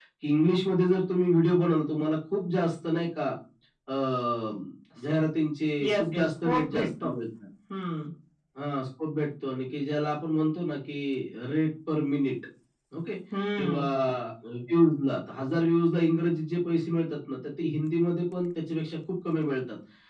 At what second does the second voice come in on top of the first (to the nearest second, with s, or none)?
6 s